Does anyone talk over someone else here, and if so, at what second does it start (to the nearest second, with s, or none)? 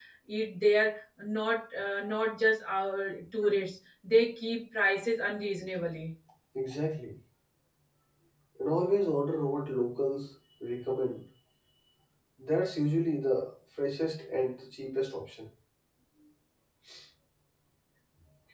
none